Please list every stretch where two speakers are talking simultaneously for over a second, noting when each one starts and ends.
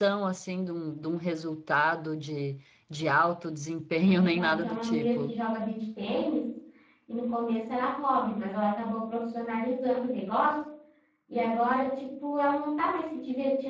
4.1-5.4

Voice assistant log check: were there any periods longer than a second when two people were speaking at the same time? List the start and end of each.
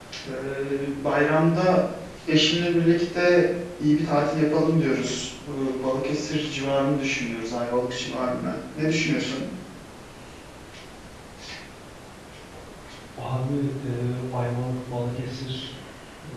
none

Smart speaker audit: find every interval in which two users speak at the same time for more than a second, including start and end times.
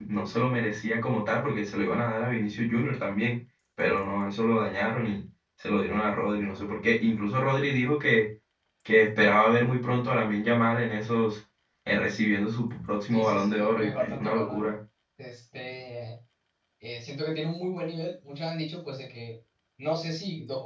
13.1-14.6

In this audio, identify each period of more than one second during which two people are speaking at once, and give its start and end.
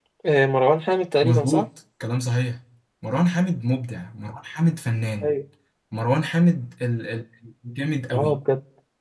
none

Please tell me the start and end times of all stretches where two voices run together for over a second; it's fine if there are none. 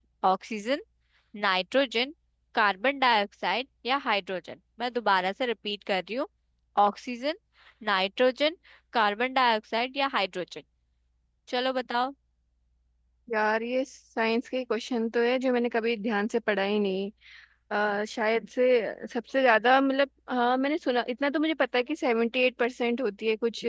none

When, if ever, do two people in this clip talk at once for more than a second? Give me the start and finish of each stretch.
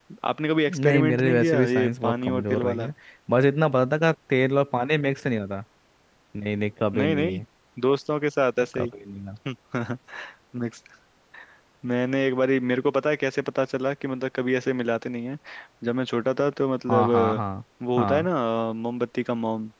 0.7-2.9

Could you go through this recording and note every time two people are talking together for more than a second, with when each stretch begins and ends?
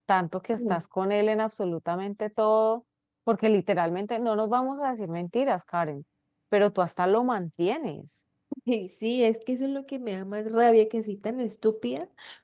none

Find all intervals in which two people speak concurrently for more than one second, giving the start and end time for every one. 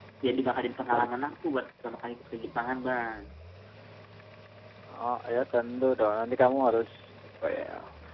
none

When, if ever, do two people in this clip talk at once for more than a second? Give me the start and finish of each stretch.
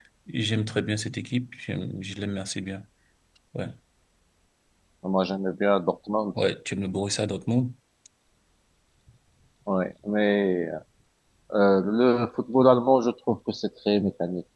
none

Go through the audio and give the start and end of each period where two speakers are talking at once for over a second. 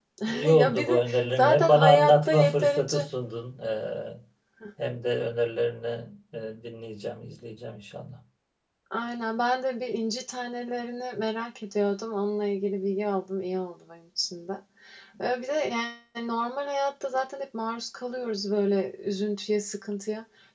0.5-3.1

